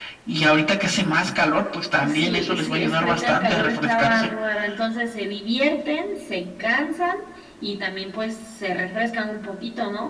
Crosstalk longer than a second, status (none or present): present